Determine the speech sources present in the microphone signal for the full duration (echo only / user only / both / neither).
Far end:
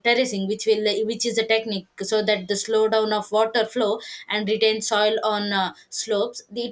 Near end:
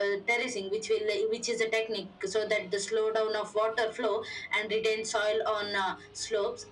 echo only